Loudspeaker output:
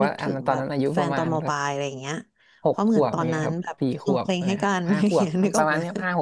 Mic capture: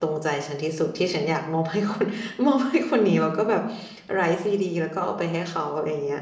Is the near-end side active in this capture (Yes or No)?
Yes